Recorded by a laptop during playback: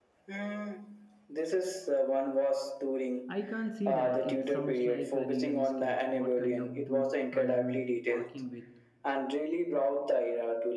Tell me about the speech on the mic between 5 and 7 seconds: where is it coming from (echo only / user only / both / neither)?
both